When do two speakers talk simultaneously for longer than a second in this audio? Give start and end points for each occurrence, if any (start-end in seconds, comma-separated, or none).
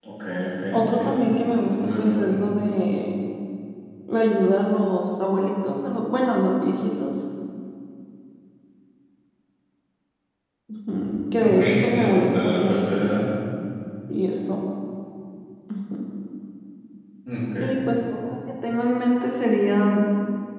0.7-2.4, 11.4-13.2